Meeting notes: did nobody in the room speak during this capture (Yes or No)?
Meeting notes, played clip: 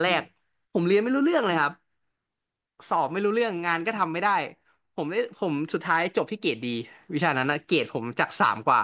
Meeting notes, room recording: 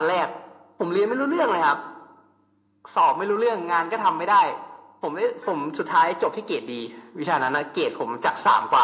Yes